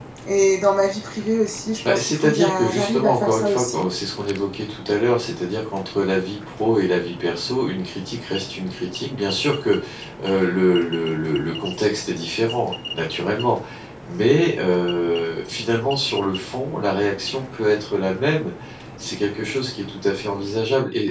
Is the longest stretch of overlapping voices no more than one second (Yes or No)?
No